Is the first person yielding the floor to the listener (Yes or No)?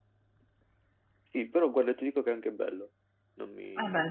Yes